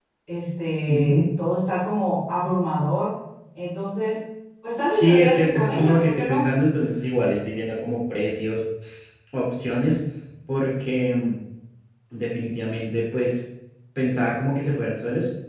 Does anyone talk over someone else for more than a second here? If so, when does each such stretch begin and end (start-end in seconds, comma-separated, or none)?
4.9-6.5